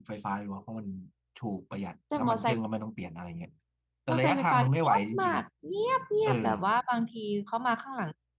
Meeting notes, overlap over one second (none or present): present